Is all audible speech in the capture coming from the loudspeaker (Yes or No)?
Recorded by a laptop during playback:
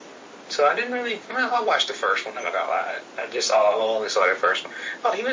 Yes